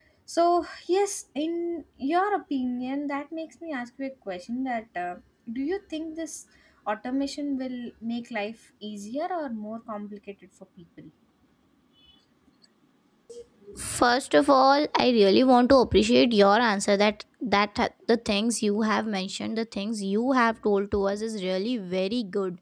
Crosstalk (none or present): none